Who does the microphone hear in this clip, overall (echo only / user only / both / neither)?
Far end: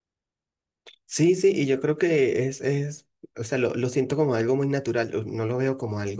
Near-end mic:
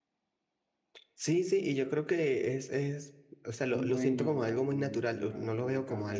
both